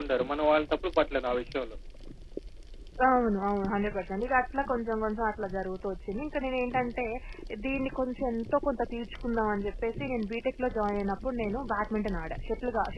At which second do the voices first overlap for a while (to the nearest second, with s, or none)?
none